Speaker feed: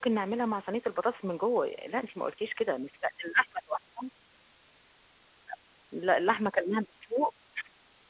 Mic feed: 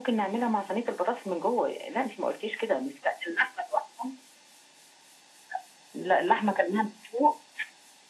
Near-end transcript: none

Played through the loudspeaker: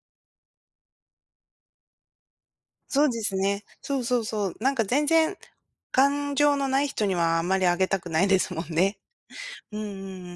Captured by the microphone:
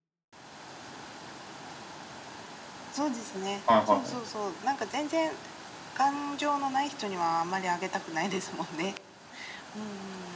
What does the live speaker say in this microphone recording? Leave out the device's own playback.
はいはいはい。

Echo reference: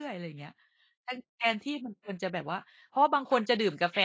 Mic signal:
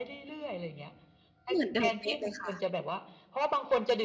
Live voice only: เหมือนเดิมเป๊ะเลยค่ะ

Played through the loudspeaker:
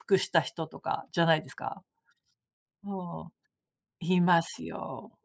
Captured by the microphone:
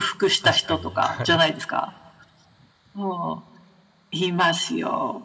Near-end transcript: 確かに。はい。

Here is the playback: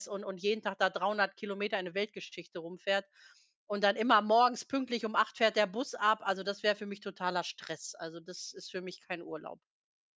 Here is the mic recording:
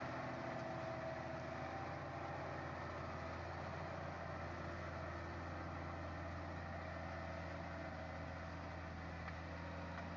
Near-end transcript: none

